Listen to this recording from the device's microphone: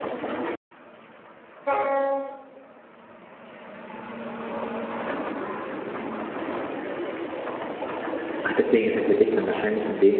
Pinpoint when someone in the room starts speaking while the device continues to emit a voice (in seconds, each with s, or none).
8.4 s